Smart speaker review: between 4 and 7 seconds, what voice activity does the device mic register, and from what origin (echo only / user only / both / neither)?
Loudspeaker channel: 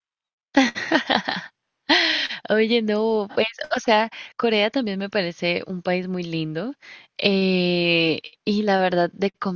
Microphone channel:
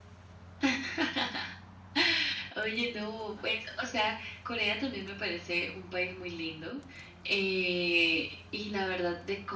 echo only